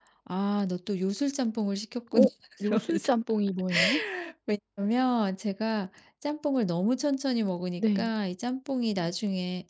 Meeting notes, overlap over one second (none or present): none